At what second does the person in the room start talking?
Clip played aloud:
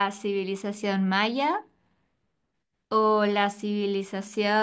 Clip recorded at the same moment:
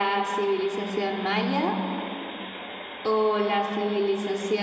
none

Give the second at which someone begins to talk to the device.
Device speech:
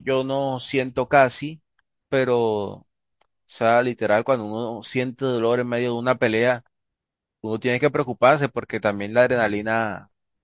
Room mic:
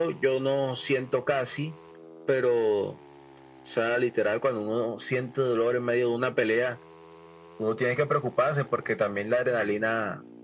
none

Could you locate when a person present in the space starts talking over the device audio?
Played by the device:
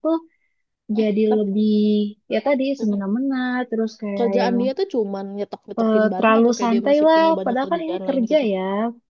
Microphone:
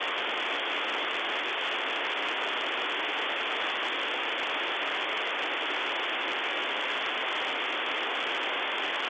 none

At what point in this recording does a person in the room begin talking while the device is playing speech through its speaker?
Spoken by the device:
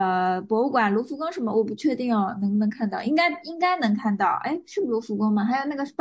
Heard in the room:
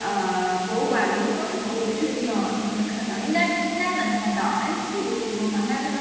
none

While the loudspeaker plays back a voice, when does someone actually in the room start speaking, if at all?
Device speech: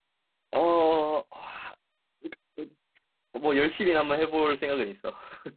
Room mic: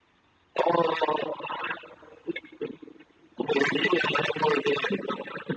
none

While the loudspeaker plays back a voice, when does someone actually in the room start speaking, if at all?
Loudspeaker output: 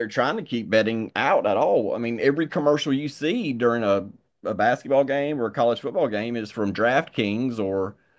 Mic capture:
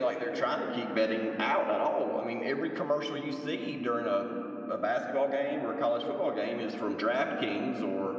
none

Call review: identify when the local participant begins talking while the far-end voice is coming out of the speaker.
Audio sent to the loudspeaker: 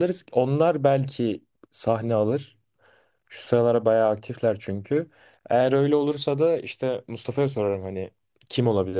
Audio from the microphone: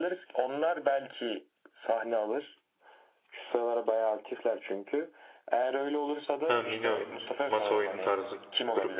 6 s

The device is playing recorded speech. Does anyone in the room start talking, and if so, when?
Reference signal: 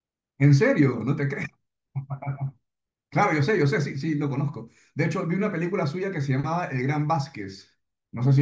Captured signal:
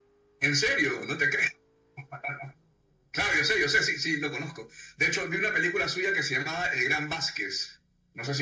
none

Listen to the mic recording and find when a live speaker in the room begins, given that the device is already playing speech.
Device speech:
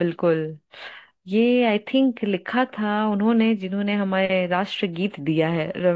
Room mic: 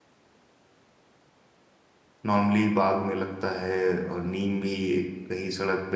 2 s

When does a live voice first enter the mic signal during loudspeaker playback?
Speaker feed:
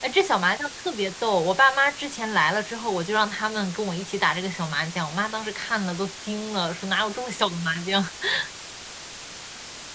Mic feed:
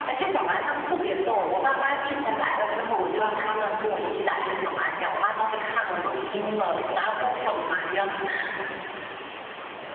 none

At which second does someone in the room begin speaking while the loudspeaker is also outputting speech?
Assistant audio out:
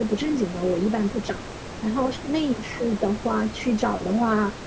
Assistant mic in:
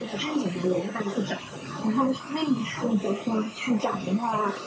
none

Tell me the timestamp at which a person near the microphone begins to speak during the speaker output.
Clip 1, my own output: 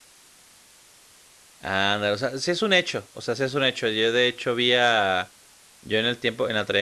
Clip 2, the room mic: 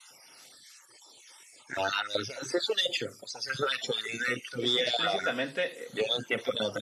5 s

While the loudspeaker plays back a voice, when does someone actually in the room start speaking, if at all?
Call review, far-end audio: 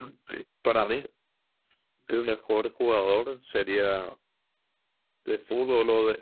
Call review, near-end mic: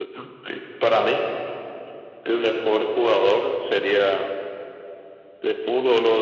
none

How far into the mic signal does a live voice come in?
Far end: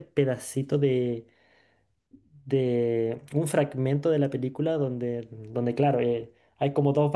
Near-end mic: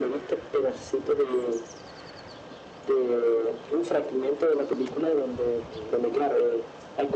none

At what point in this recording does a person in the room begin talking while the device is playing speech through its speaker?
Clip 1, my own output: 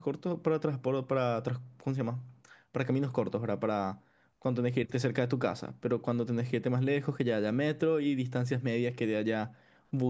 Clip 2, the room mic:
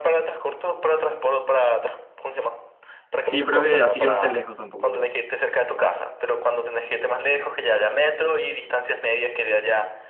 3 s

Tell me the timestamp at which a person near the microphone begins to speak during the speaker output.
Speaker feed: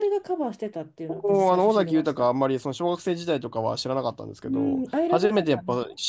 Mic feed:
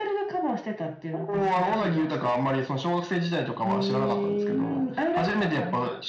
4 s

